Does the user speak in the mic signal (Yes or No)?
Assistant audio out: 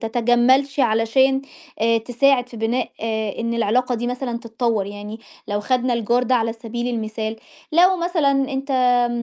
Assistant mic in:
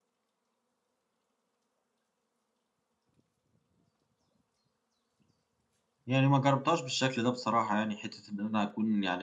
Yes